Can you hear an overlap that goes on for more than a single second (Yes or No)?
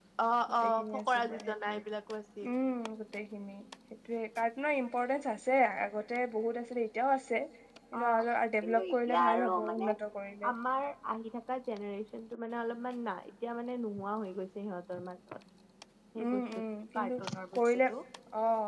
Yes